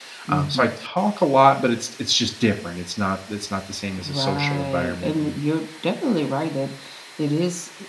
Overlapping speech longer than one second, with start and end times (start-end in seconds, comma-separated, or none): 4.0-5.3